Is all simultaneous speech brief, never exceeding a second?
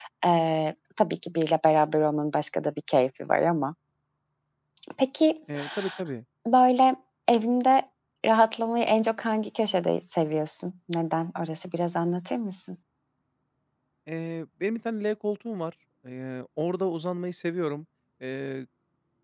Yes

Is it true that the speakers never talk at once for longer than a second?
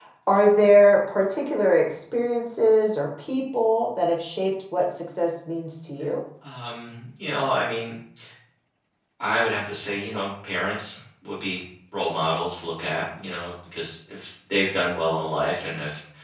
Yes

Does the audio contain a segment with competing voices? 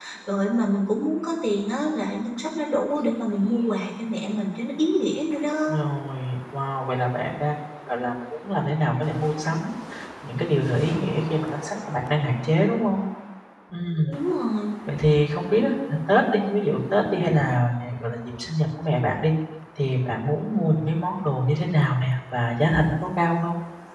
No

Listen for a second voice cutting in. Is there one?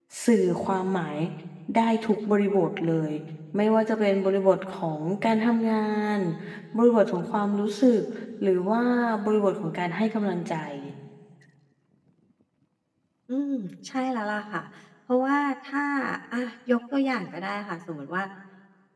No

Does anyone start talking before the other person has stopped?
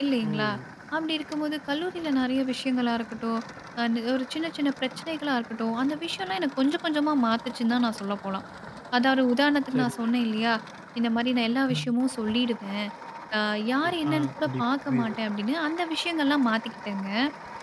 Yes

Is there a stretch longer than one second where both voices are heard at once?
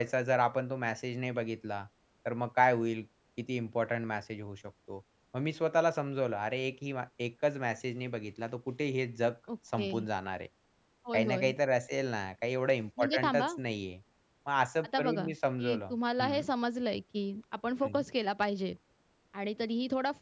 Yes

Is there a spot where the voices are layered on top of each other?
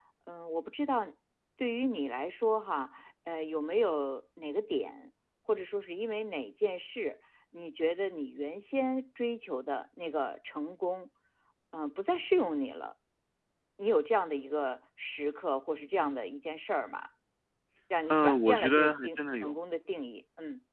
Yes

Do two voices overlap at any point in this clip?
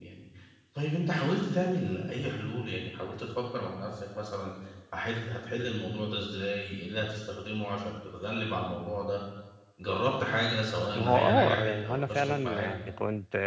Yes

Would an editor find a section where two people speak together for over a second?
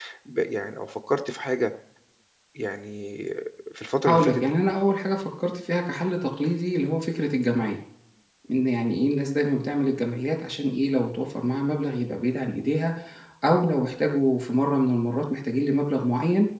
No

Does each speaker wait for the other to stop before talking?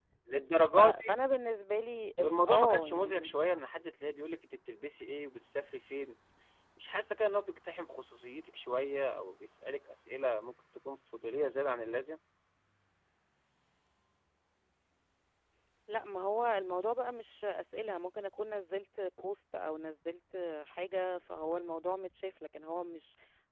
No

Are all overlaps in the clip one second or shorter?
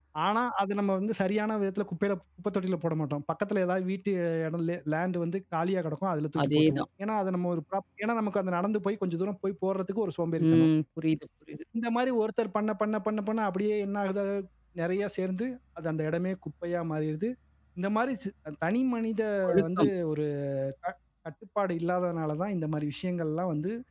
Yes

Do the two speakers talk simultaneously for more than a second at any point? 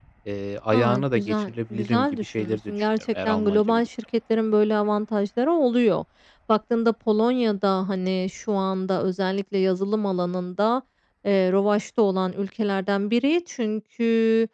Yes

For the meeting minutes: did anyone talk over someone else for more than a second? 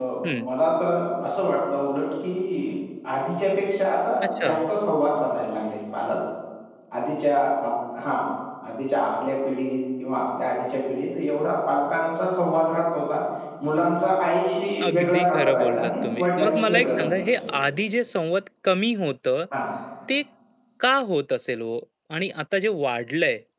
Yes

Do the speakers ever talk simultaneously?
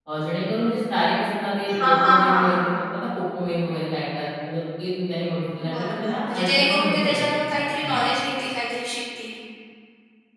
Yes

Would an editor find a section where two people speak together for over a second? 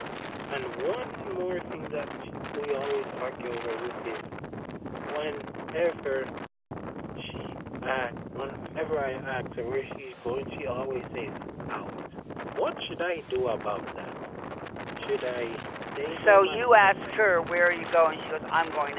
Yes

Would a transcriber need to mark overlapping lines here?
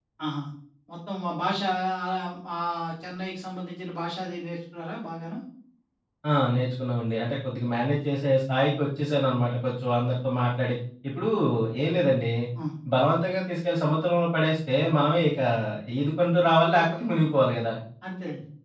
No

